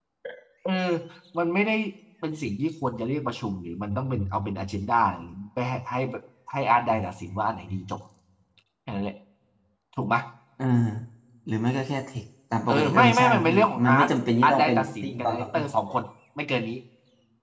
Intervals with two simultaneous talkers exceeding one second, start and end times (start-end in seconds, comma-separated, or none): 12.7-14.1, 14.4-15.6